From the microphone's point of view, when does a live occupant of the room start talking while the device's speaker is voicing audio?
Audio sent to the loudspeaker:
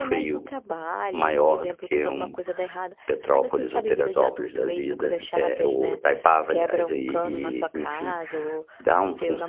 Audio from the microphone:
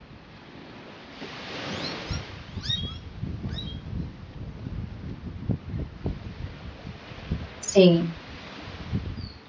7.6 s

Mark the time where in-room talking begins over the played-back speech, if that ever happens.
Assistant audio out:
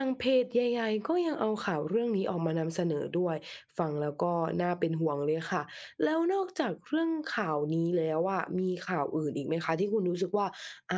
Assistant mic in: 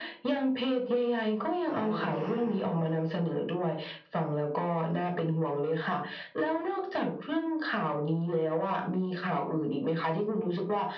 1.6 s

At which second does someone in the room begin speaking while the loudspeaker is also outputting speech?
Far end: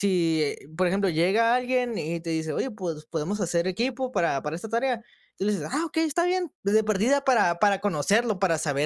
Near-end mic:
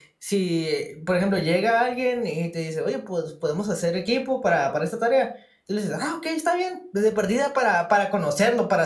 none

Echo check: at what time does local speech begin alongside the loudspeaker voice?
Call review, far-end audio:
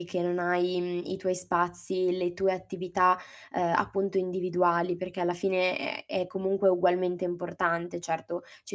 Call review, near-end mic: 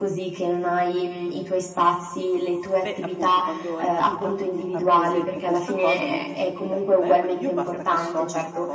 2.8 s

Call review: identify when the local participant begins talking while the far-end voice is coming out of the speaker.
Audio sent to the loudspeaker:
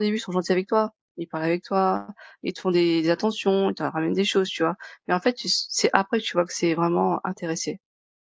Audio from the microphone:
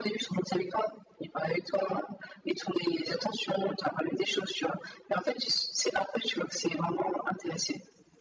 none

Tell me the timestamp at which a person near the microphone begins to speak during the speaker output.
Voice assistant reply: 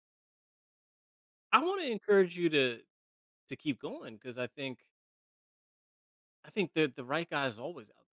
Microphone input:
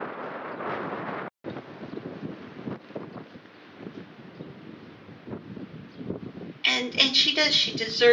6.7 s

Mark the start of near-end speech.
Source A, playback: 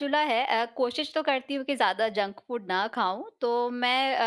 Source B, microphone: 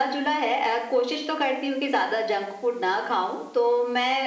none

